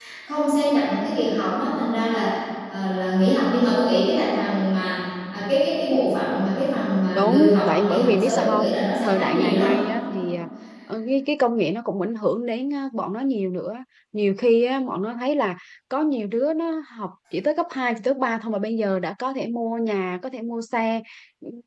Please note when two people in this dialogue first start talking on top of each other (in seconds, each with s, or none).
7.2 s